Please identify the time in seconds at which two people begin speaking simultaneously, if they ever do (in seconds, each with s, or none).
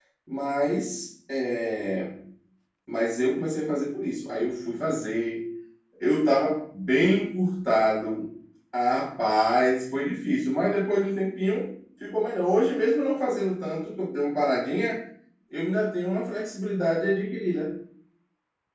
none